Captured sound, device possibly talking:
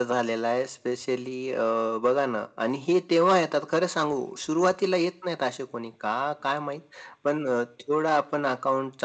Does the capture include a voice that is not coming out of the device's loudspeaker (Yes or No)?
No